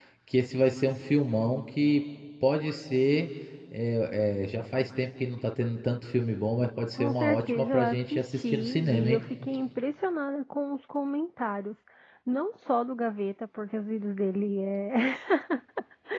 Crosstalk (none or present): present